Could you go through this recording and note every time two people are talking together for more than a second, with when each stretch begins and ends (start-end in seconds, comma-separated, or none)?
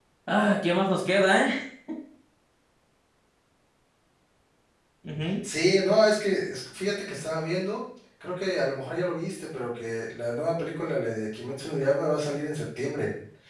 none